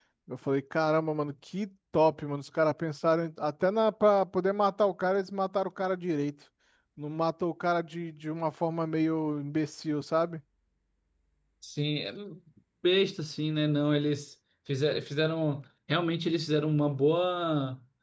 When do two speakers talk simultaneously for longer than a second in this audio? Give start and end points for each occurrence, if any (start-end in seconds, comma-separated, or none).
none